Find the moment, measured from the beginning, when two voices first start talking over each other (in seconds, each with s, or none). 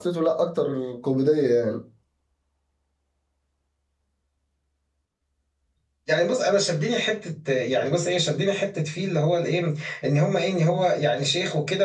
none